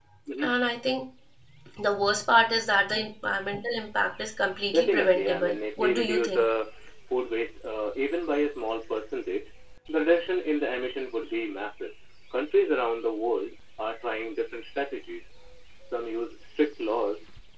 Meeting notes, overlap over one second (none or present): present